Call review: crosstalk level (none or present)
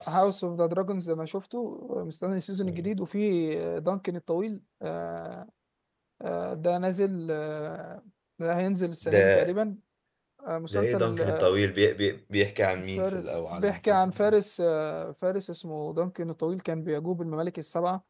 present